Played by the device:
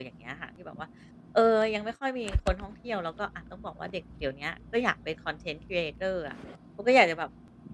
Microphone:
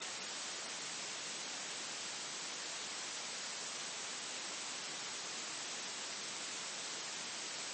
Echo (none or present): none